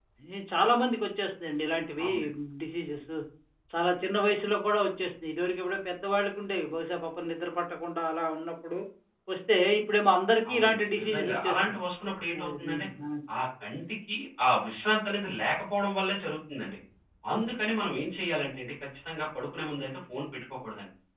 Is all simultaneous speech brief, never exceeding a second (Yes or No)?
No